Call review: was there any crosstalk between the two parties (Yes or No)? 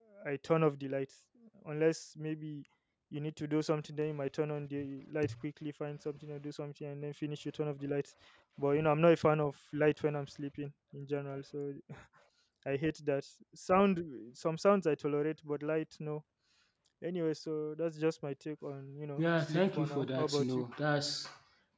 Yes